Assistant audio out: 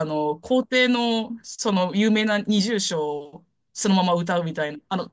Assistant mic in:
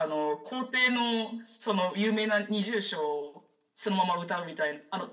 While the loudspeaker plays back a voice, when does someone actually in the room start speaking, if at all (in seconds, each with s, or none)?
none